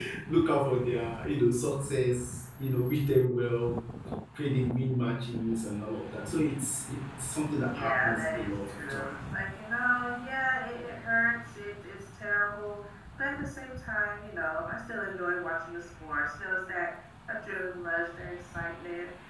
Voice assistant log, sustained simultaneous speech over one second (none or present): present